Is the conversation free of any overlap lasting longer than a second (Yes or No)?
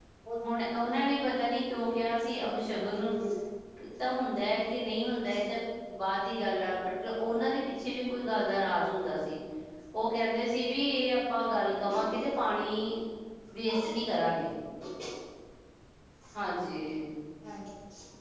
Yes